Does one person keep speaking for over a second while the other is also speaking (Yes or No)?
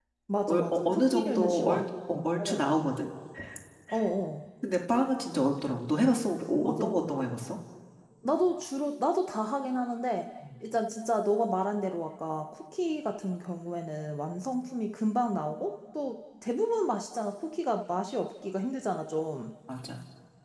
Yes